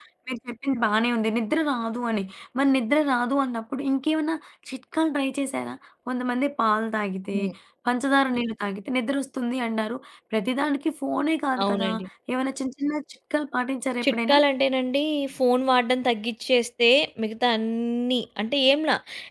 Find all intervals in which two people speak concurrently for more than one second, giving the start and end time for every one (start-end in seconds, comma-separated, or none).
none